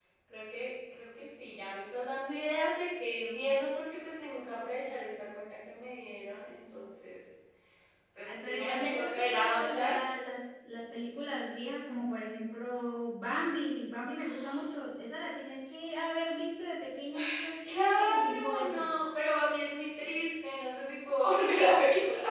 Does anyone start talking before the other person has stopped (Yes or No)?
Yes